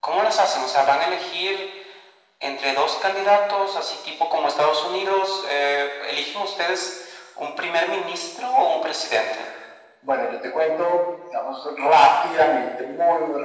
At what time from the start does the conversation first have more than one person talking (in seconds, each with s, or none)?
none